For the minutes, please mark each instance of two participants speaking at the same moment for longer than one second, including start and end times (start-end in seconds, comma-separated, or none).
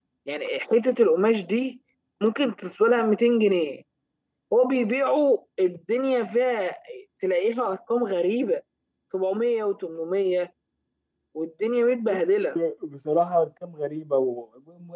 none